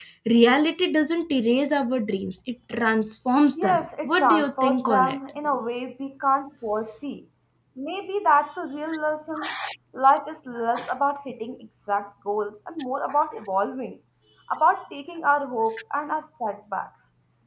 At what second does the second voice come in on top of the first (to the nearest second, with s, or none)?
4 s